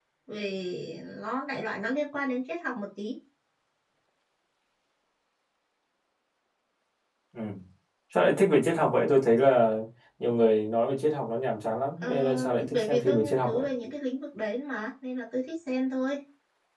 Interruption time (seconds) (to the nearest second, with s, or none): 12 s